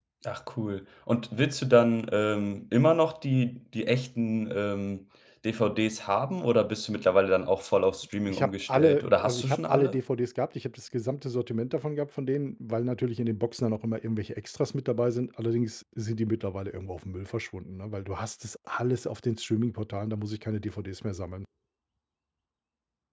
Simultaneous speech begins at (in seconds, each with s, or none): 8.3 s